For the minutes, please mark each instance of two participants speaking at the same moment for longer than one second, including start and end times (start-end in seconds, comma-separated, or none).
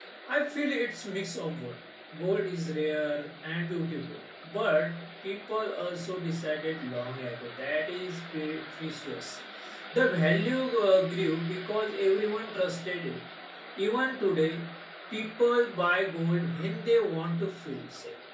none